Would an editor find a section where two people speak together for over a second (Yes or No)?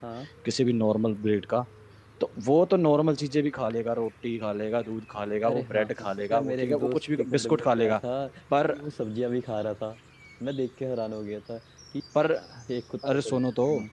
Yes